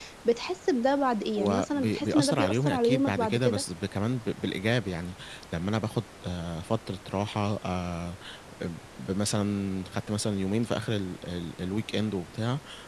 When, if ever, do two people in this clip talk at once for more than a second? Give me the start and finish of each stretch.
1.4-3.6

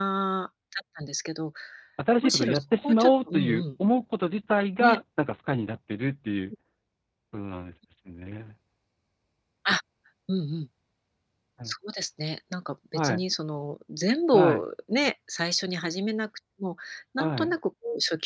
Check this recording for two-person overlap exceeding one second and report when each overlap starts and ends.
2.2-3.6

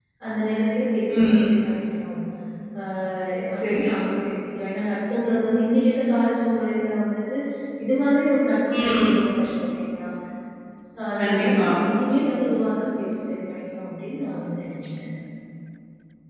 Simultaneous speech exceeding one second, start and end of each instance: none

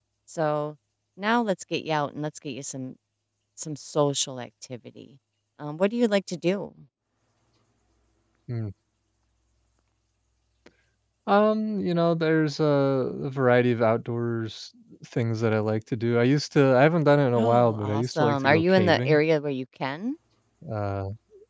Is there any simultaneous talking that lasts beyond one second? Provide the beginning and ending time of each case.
17.4-19.2

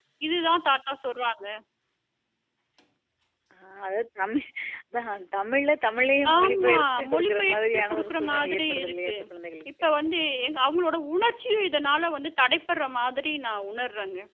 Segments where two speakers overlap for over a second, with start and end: 6.4-9.1

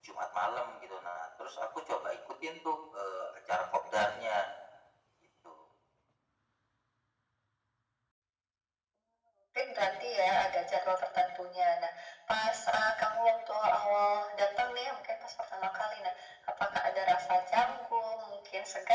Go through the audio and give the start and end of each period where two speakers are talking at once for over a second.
none

